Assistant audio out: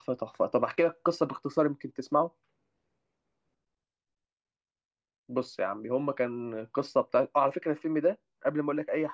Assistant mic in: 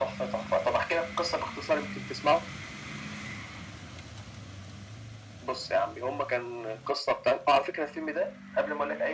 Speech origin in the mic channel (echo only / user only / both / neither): echo only